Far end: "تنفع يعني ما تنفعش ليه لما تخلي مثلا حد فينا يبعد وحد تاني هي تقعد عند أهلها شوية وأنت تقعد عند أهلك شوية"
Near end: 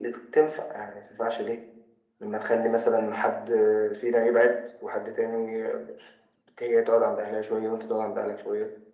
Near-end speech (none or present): none